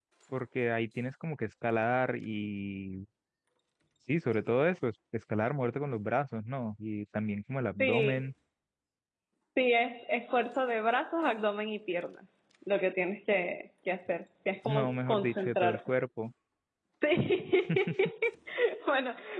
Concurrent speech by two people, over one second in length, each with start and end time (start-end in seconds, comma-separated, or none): 14.6-15.9